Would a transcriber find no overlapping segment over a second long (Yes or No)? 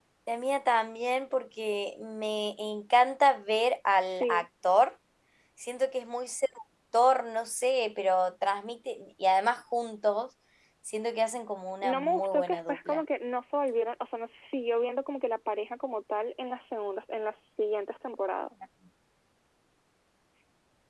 No